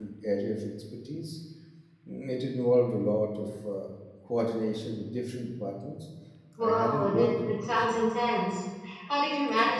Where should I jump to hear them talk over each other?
6.6 s

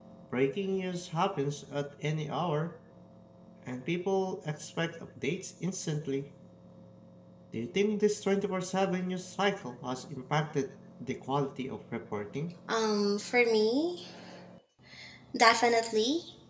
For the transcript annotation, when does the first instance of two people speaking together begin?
none

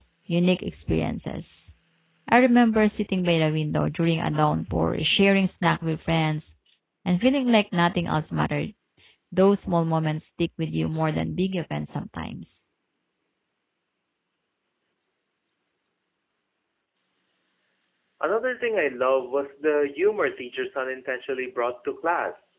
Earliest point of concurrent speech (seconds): none

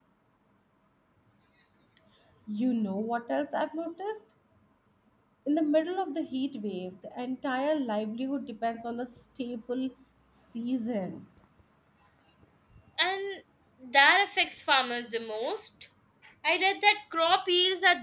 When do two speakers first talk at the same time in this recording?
none

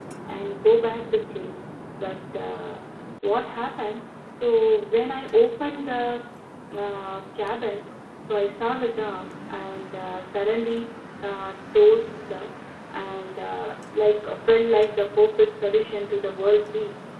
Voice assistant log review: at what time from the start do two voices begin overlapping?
none

